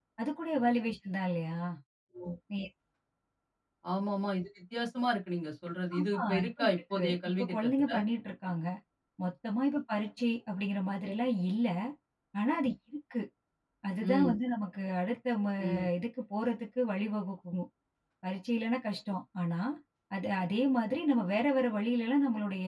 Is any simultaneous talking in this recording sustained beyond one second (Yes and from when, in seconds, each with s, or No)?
Yes, from 6.0 s